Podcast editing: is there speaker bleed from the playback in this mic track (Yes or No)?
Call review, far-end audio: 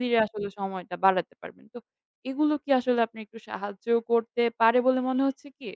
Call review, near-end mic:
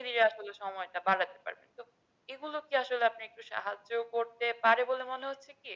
Yes